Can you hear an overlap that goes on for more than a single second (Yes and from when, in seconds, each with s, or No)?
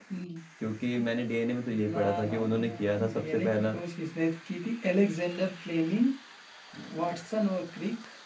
Yes, from 1.9 s